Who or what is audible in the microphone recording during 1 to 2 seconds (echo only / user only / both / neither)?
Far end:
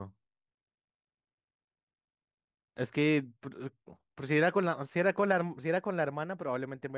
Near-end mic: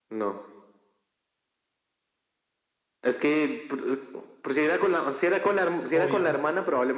neither